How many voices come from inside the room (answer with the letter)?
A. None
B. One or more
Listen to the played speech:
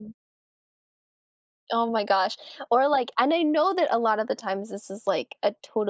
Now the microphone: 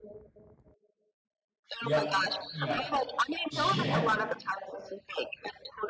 B